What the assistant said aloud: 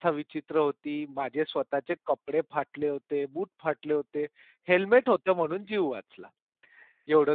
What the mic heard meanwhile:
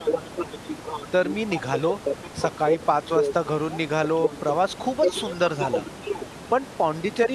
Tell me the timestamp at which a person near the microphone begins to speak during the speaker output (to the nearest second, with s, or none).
1 s